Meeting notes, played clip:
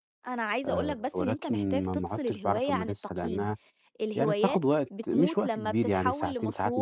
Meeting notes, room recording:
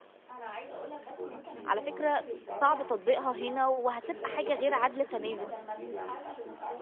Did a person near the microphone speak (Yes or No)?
Yes